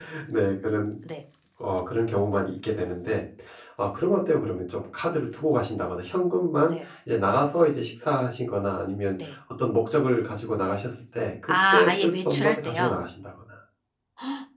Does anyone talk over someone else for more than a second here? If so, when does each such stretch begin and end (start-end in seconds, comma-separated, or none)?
11.5-13.0